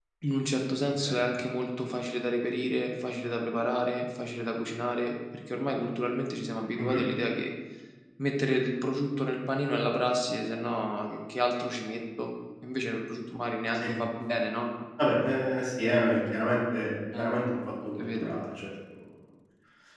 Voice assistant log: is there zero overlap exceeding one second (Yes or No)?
Yes